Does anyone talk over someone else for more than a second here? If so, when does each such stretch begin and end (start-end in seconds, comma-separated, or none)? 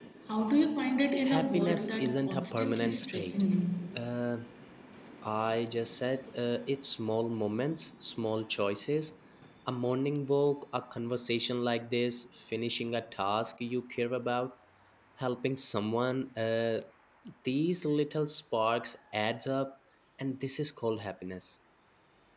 1.2-3.4